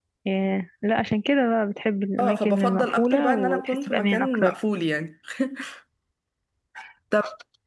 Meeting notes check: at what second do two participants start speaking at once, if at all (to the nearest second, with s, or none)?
2 s